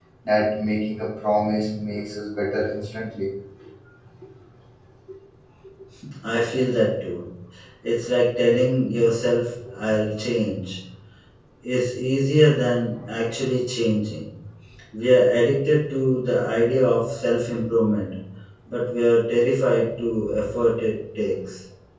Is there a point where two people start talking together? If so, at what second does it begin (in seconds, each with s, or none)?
none